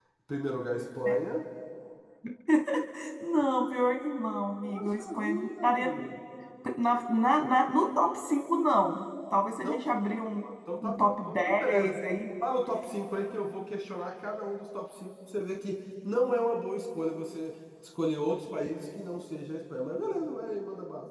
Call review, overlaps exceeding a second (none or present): present